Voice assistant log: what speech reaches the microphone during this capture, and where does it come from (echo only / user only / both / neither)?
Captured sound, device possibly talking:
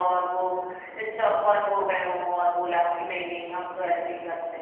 echo only